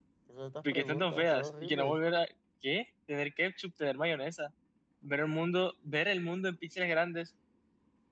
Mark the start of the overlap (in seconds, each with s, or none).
0.6 s